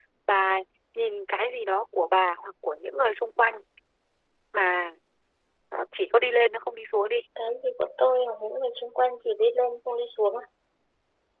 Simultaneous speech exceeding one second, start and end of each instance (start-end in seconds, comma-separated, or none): none